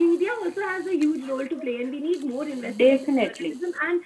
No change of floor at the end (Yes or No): Yes